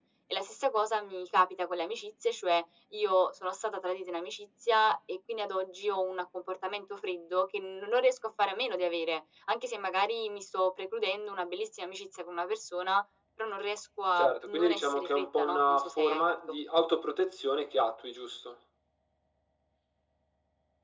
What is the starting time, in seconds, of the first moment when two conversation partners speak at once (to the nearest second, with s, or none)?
14 s